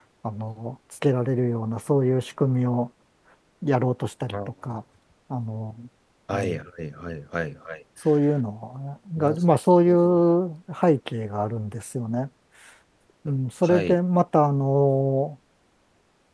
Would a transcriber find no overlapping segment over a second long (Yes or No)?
Yes